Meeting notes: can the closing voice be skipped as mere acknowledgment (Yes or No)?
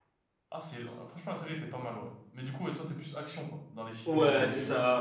No